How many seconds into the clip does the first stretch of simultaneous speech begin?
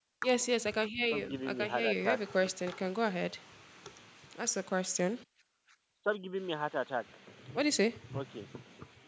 1.1 s

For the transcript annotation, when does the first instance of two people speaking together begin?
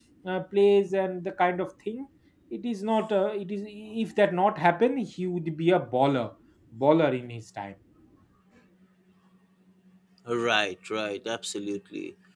none

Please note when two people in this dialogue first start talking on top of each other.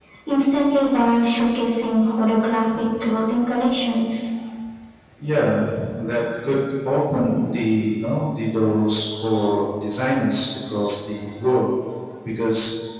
none

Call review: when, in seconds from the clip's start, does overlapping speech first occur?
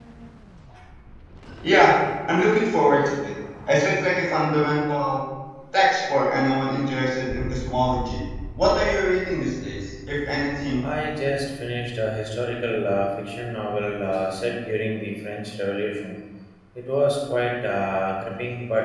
none

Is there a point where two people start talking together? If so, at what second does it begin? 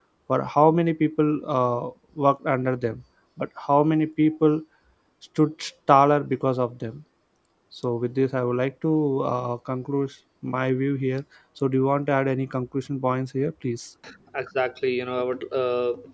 none

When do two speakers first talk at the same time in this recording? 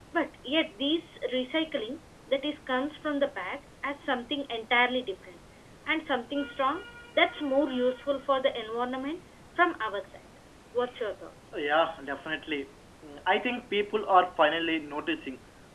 none

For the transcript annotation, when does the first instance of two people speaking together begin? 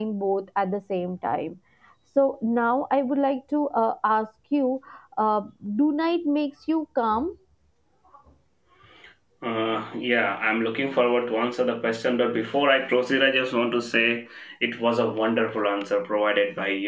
none

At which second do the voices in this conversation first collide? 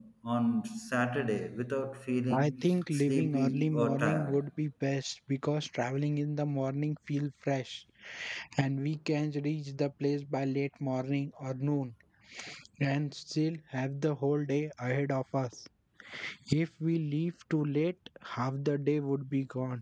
2.3 s

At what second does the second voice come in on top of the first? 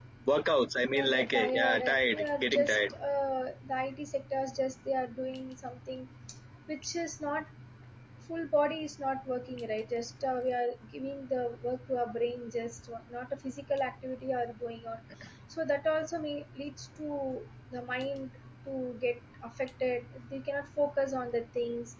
0.9 s

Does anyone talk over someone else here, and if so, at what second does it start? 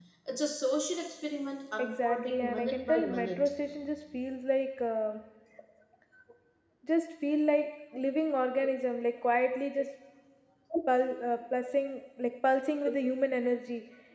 1.8 s

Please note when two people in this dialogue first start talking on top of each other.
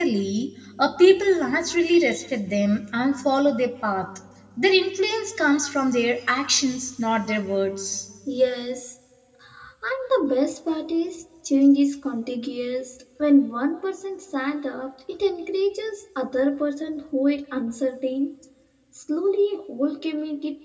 none

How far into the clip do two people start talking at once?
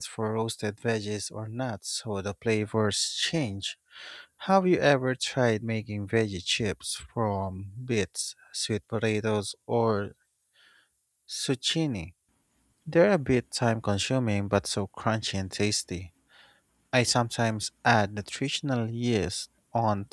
none

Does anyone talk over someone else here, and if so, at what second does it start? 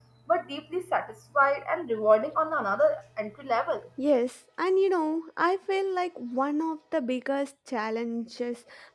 none

